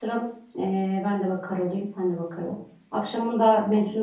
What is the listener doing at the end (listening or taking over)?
listening